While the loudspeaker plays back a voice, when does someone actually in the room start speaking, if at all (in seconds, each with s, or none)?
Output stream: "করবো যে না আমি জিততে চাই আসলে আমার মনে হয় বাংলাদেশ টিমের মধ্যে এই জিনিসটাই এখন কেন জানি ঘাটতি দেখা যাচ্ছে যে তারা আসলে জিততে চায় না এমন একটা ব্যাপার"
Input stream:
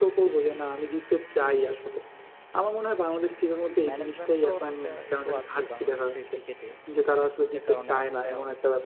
3.9 s